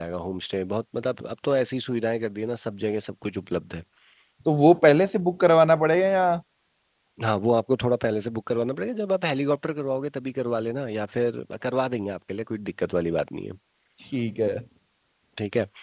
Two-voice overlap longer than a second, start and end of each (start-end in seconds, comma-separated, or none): none